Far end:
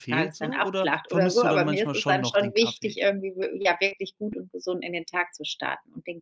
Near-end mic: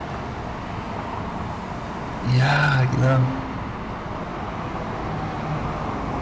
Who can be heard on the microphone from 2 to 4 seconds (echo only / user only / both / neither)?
user only